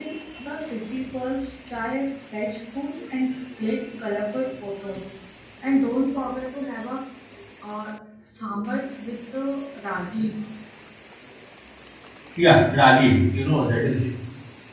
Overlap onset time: none

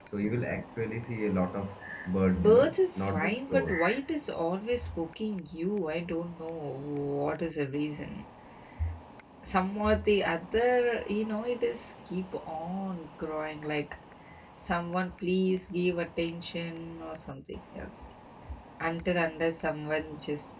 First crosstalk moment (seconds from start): 2.4 s

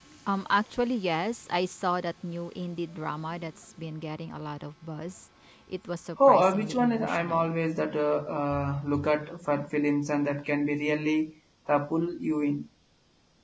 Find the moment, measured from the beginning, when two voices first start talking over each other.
6.3 s

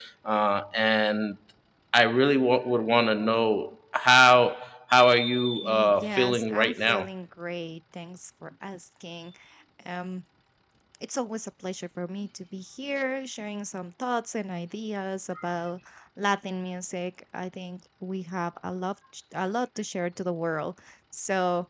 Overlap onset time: 5.6 s

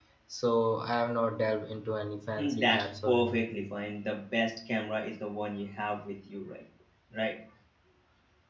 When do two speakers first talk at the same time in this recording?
2.4 s

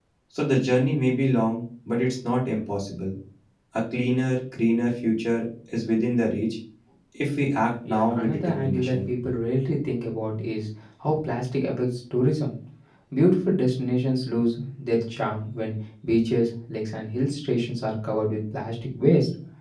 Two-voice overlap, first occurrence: 7.9 s

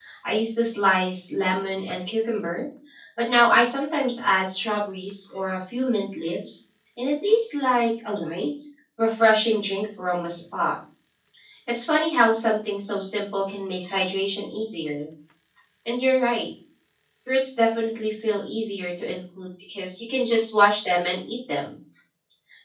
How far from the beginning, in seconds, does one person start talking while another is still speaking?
none

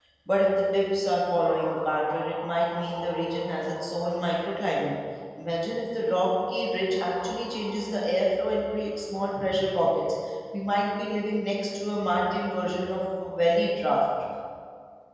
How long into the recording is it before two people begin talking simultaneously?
none

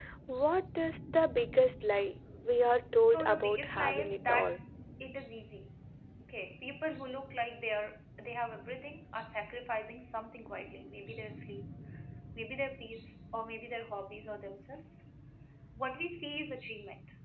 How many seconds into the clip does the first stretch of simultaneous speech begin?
3.1 s

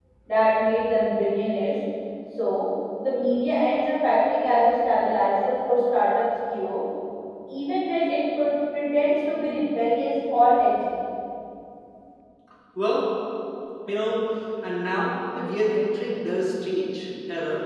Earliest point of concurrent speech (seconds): none

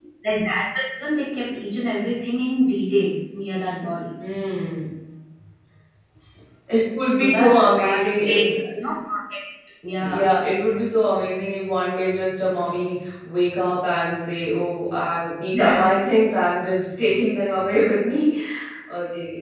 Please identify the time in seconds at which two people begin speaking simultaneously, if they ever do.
7.1 s

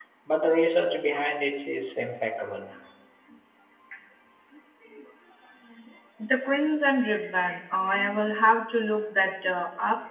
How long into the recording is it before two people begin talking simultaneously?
none

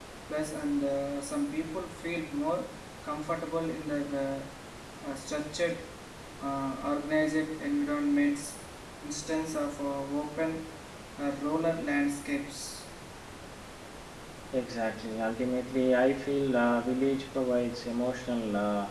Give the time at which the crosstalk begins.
none

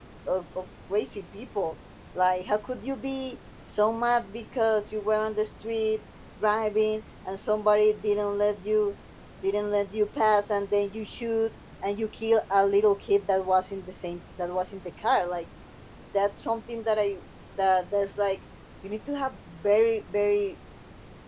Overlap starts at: none

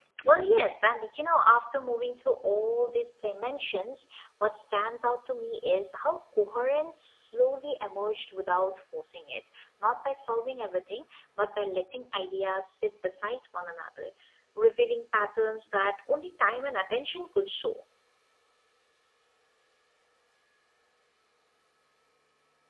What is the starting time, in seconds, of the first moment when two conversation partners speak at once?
none

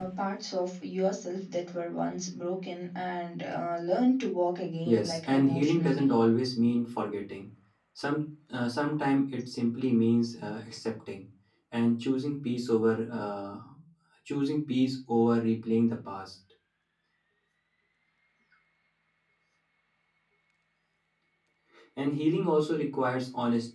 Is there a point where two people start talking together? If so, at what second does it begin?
4.8 s

